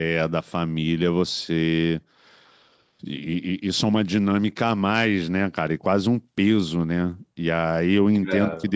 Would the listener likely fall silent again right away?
Yes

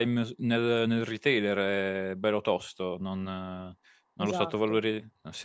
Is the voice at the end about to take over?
No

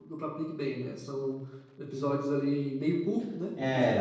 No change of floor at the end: No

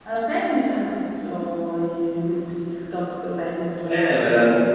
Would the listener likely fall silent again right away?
No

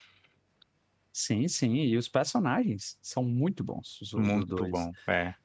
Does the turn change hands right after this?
Yes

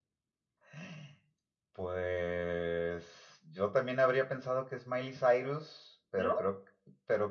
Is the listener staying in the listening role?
Yes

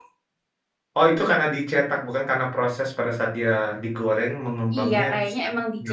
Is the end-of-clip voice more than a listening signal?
Yes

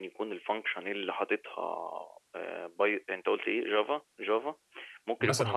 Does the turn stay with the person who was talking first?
Yes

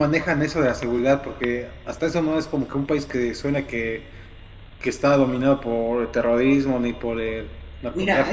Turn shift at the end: Yes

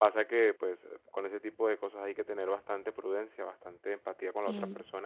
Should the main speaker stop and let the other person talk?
No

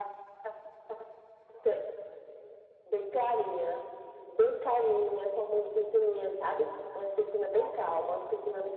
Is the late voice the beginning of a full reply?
No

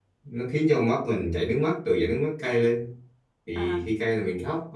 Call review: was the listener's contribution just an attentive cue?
Yes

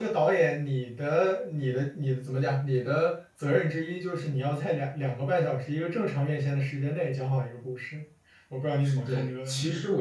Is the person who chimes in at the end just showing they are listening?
No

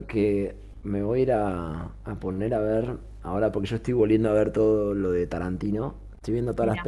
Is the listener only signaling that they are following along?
Yes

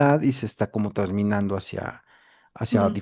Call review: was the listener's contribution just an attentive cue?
Yes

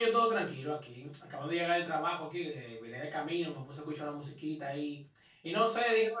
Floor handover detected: No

